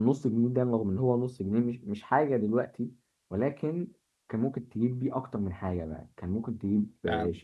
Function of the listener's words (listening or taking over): listening